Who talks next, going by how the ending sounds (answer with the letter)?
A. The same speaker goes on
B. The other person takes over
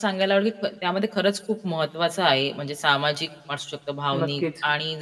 A